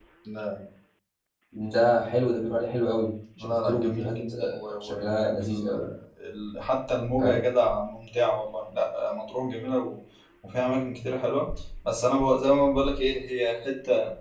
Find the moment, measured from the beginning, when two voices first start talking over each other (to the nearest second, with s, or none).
3 s